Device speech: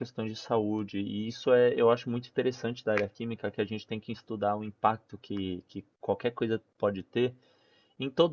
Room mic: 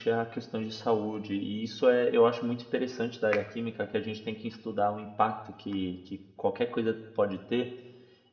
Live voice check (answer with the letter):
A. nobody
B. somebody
A